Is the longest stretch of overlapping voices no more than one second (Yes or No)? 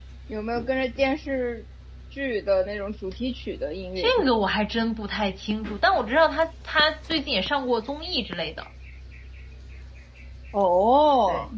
Yes